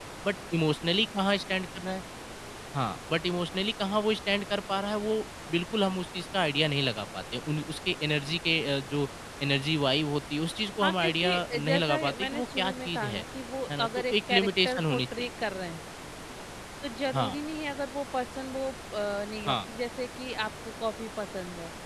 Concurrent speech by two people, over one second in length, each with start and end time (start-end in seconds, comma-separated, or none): 10.8-13.2, 13.8-15.3